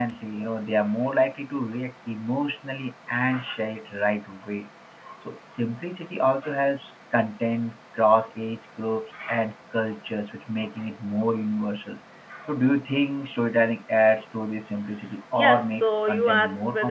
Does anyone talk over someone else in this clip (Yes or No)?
Yes